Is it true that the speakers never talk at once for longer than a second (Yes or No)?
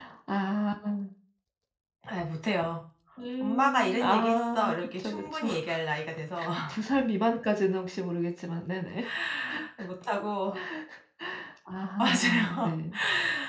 No